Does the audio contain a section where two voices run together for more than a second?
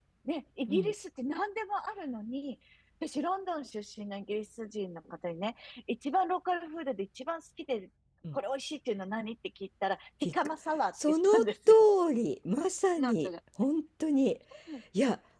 No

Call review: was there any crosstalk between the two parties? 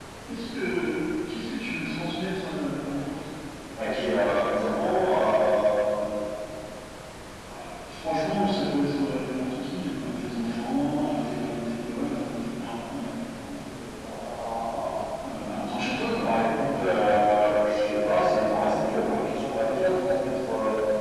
No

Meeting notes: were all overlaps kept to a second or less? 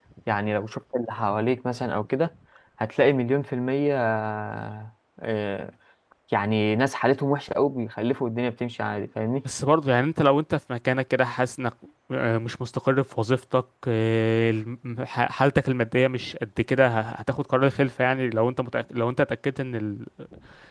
Yes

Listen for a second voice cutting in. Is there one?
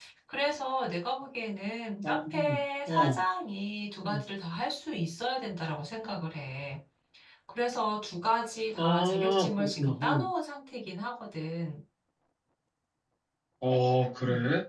Yes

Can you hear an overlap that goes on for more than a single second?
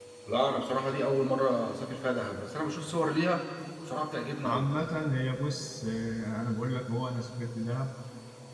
No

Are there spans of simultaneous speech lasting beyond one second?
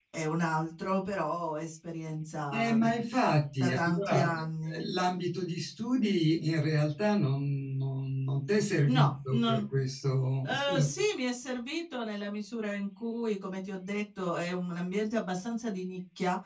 Yes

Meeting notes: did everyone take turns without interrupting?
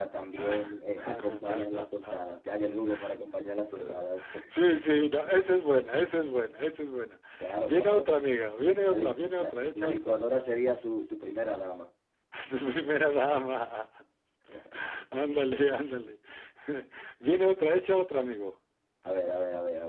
No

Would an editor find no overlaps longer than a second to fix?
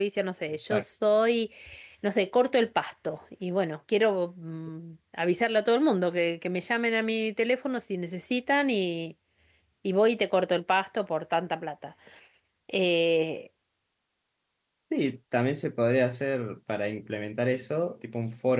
Yes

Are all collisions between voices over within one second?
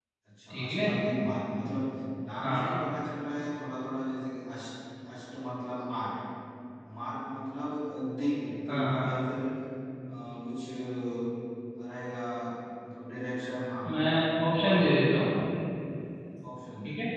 Yes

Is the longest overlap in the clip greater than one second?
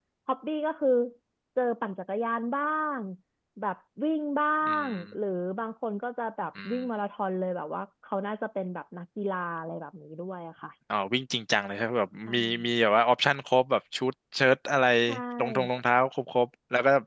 No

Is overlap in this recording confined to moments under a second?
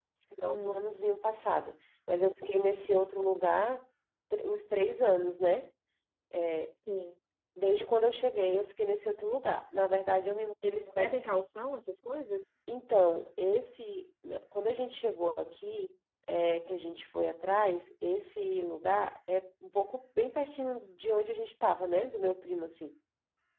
Yes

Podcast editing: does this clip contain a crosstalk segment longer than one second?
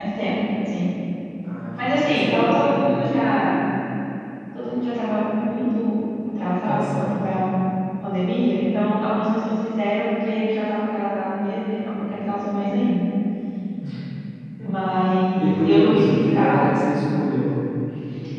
Yes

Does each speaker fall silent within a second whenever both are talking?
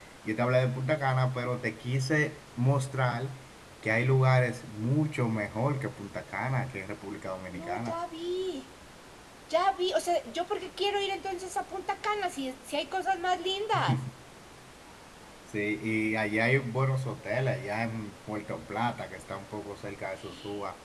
Yes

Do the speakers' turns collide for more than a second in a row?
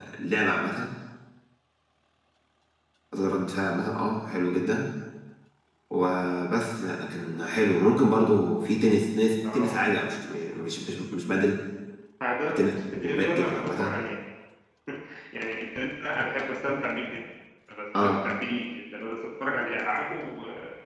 Yes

